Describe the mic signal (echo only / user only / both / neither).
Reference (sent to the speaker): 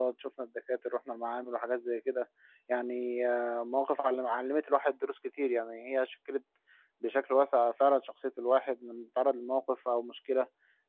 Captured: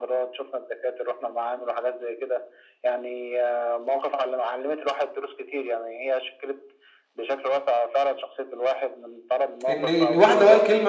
both